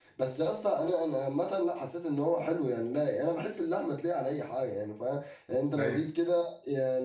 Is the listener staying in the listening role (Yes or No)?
Yes